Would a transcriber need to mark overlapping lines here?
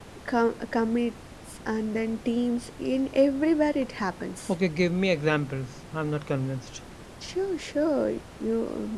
No

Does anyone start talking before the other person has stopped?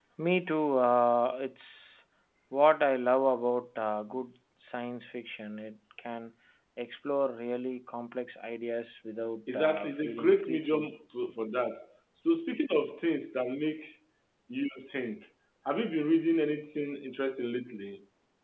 Yes, from 9.5 s

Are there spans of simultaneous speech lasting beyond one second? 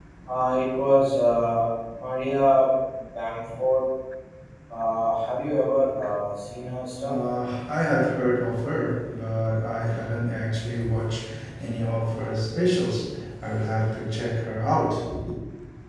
No

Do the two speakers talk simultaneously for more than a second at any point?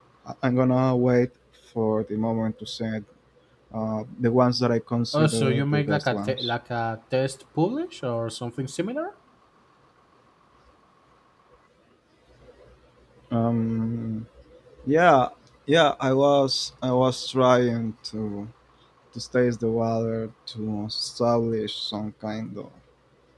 Yes, from 5.1 s

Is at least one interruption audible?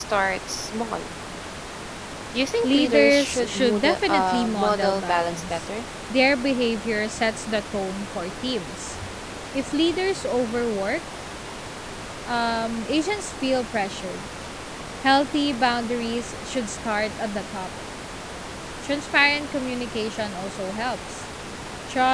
Yes, from 2.6 s

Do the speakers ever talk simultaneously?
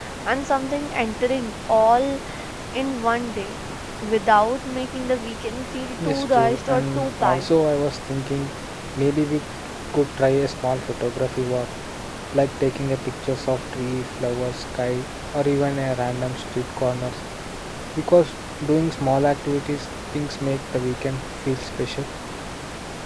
Yes, from 6.0 s

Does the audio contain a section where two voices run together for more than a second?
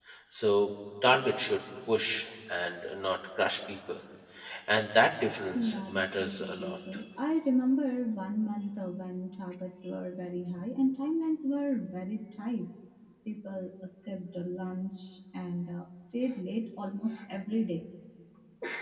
Yes, from 5.5 s

